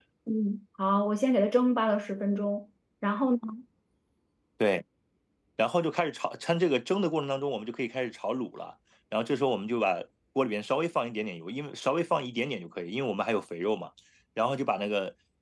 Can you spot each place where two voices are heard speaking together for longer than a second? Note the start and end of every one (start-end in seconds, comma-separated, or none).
none